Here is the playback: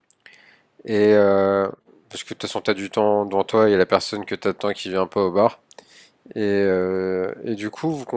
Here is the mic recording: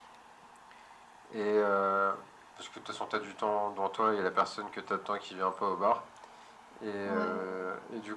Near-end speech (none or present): present